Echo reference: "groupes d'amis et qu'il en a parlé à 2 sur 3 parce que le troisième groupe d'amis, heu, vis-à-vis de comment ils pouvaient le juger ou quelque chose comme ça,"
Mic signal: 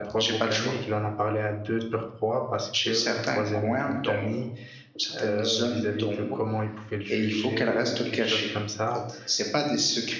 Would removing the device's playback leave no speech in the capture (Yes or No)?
No